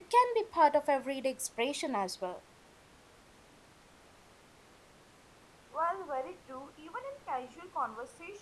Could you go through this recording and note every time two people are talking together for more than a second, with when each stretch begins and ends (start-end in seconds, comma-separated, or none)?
none